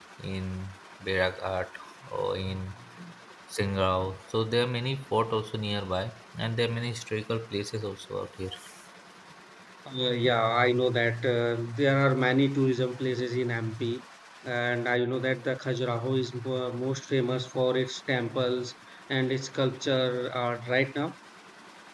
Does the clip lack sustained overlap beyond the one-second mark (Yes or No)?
Yes